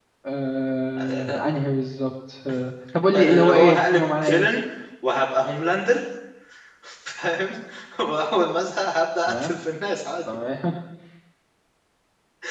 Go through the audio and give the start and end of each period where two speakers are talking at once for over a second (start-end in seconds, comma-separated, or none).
3.1-4.4